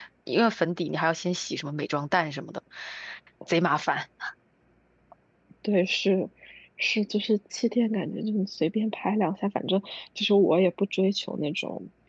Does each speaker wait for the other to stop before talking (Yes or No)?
Yes